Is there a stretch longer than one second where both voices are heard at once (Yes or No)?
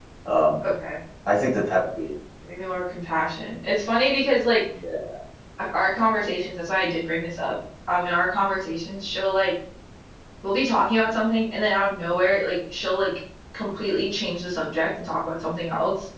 No